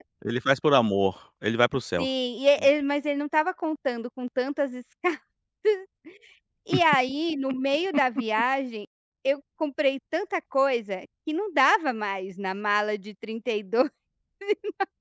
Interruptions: none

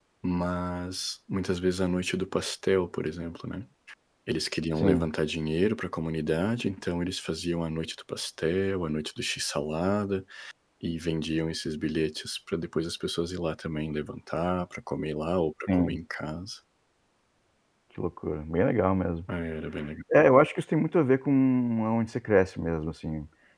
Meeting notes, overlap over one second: none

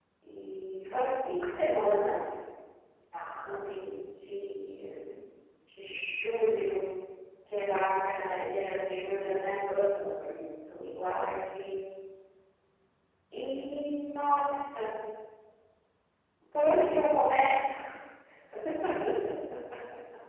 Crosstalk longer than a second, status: none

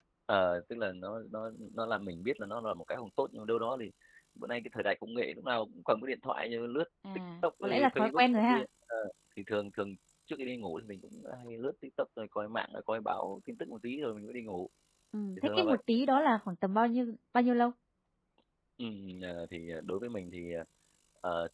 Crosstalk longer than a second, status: present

